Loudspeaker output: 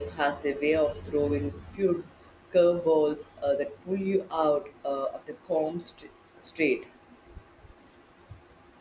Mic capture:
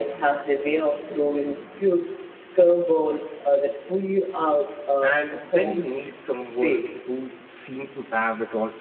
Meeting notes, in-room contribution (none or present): present